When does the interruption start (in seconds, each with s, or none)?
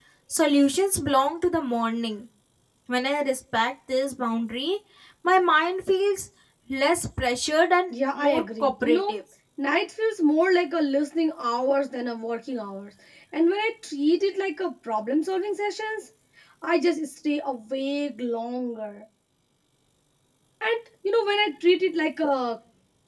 7.9 s